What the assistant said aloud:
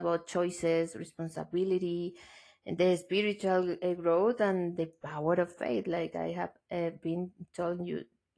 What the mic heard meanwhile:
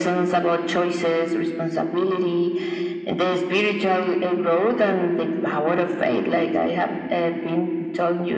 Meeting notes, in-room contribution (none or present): none